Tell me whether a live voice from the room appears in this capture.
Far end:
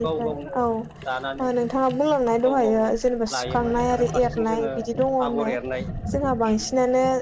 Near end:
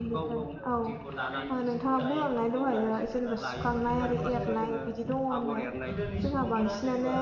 Yes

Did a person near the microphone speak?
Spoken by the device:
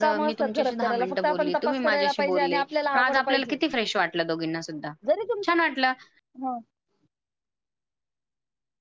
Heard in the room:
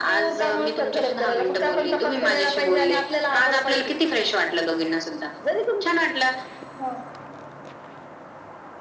No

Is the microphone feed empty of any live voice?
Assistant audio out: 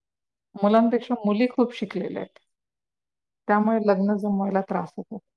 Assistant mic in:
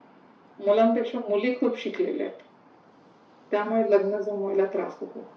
Yes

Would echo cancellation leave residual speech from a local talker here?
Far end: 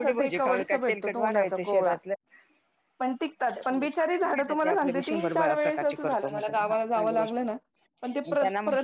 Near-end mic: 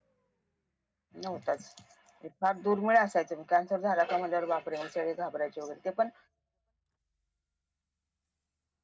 Yes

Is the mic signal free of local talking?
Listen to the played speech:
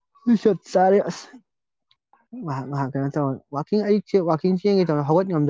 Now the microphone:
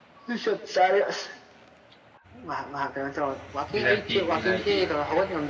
No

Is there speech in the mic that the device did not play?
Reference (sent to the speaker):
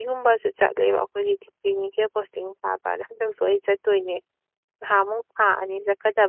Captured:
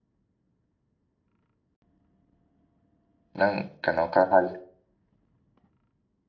Yes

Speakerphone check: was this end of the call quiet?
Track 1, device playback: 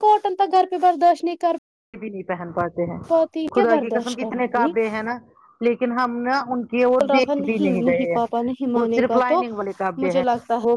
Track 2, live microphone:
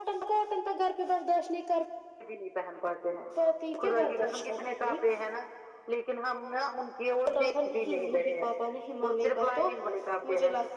Yes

